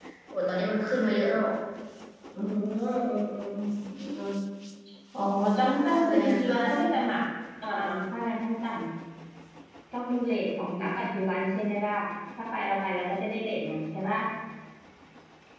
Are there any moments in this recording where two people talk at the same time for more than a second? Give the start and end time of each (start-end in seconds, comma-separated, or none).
5.7-7.0